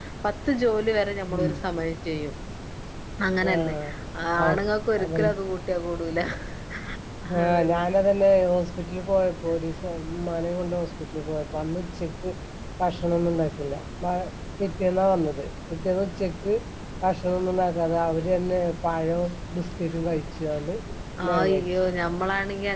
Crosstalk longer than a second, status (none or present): none